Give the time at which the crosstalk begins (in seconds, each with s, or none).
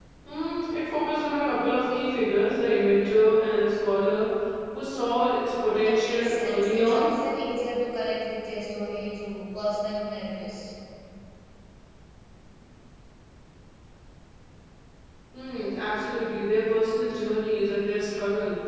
5.8 s